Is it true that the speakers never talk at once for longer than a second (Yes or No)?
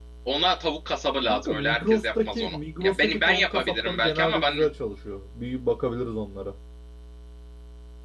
No